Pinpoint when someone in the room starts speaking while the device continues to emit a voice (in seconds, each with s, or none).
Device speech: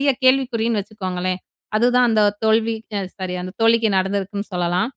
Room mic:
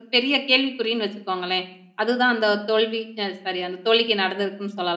none